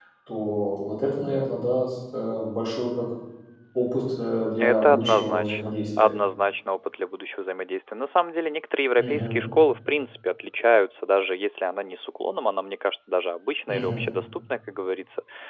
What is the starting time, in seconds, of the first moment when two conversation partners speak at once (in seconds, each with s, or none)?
4.6 s